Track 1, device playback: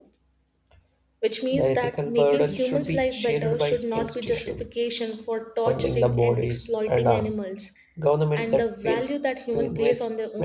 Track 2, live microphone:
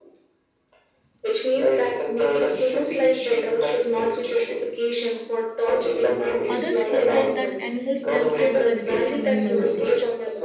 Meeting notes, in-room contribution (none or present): present